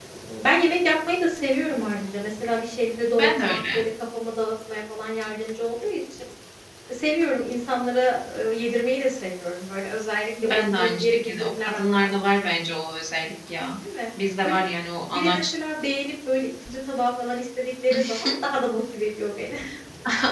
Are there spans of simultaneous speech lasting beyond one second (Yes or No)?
Yes